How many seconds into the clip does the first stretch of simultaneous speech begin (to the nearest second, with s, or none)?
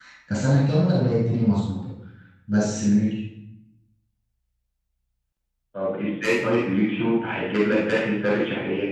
none